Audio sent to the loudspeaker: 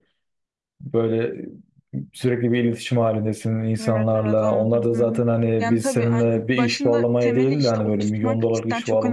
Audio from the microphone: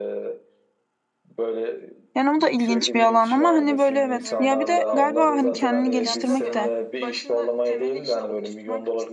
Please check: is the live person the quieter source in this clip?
No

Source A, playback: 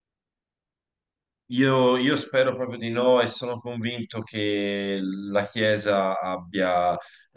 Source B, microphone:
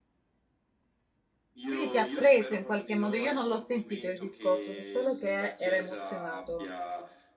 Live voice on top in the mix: Yes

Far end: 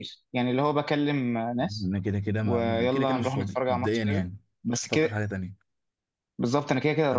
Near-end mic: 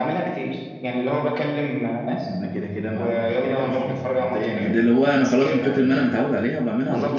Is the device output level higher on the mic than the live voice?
No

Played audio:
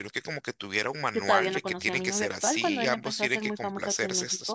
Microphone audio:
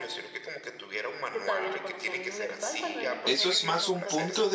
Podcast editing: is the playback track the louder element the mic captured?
No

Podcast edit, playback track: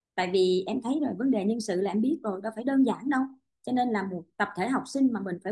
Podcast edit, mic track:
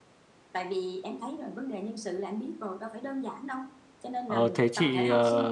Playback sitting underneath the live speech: Yes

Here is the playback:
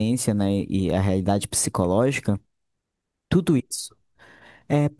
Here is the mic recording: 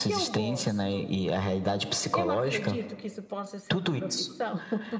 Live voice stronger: No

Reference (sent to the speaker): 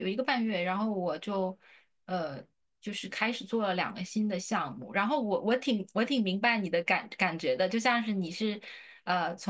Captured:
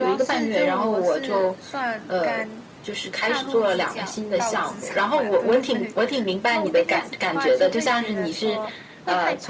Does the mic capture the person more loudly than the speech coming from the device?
No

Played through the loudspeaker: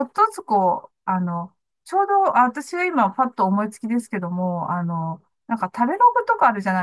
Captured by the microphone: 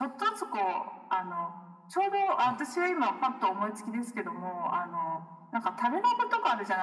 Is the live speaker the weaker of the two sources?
Yes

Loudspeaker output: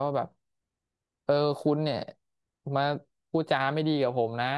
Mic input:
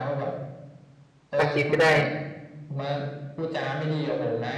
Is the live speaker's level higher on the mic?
Yes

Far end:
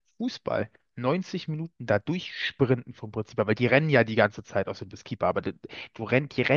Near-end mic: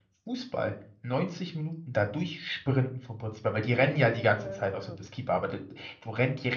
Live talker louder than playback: No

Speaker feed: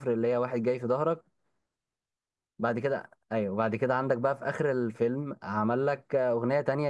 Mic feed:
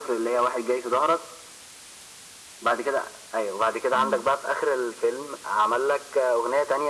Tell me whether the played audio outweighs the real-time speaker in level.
Yes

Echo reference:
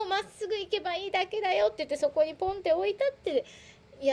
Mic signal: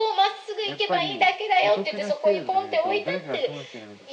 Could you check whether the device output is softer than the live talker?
No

